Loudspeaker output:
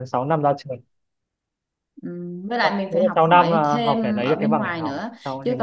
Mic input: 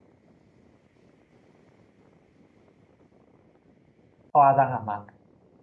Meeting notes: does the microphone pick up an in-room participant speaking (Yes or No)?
Yes